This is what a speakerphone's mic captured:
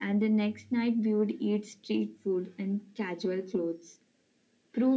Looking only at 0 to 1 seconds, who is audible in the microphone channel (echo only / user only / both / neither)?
echo only